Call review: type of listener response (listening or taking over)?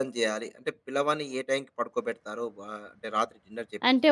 taking over